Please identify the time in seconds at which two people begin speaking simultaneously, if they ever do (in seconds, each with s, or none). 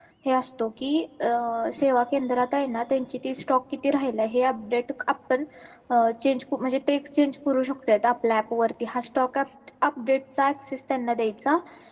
none